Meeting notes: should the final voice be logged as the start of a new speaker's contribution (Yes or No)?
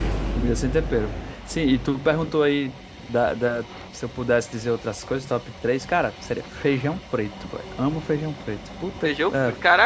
Yes